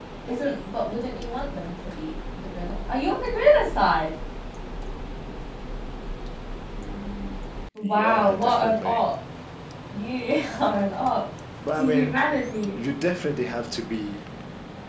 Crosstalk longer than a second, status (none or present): present